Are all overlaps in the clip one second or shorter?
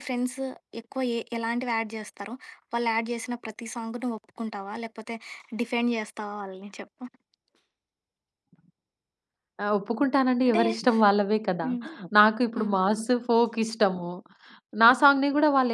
Yes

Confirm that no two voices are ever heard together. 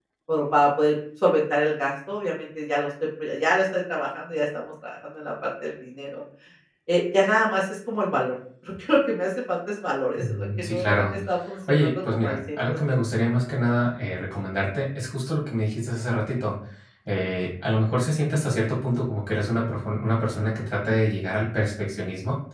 No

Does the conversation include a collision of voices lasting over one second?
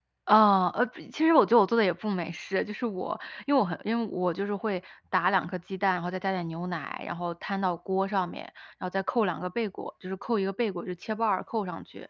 No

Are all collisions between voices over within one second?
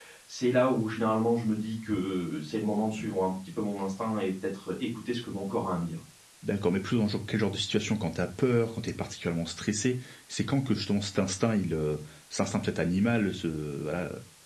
Yes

